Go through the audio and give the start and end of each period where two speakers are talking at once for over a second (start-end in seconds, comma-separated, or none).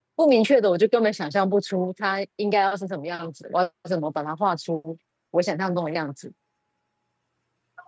none